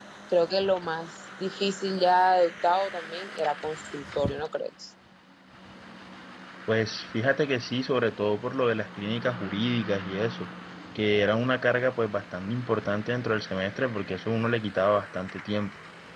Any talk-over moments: No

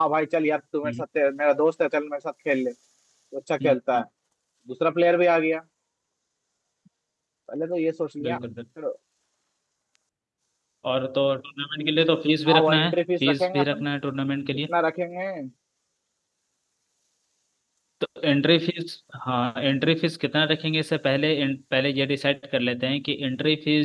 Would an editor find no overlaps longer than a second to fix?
No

